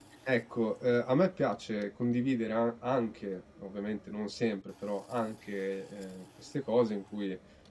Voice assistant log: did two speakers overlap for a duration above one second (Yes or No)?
No